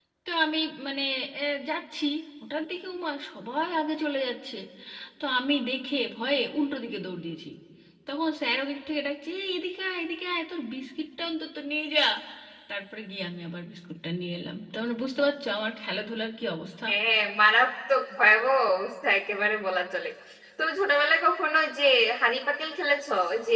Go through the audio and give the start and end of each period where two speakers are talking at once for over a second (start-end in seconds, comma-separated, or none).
none